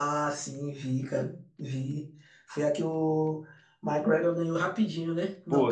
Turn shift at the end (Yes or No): Yes